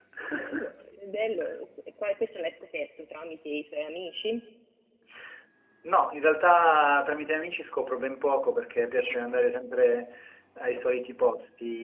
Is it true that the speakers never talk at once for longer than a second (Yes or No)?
Yes